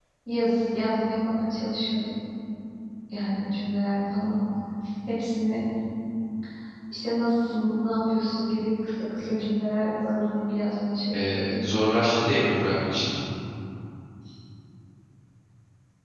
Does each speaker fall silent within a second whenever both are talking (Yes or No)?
Yes